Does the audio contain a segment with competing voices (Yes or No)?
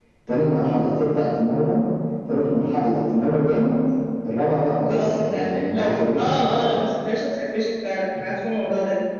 Yes